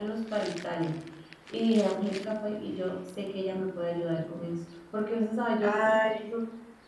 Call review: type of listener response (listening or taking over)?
listening